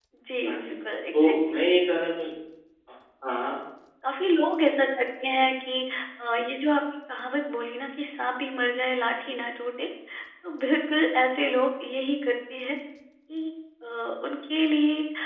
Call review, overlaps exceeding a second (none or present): none